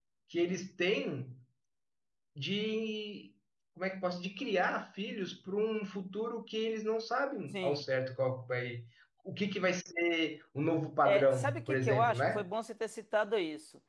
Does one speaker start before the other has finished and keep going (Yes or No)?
Yes